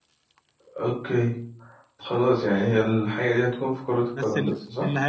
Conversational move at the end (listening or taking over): taking over